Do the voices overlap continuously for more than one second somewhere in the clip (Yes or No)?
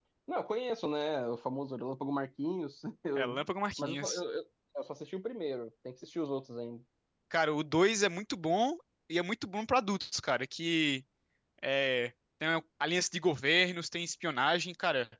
No